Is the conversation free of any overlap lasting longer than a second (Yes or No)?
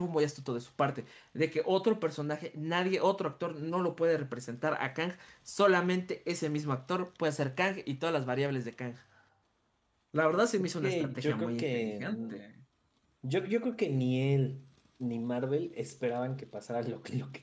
No